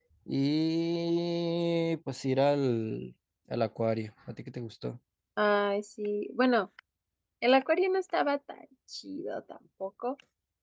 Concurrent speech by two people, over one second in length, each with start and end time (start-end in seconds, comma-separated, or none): none